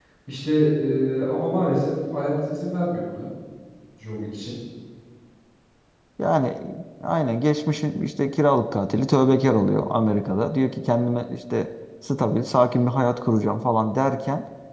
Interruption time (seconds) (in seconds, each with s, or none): none